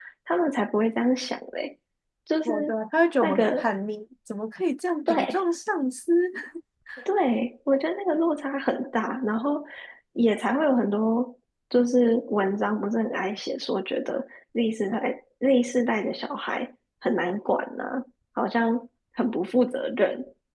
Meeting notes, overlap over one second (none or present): none